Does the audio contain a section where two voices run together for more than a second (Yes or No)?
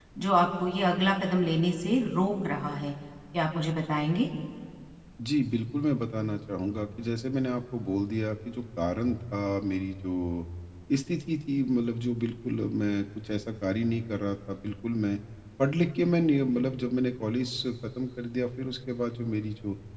No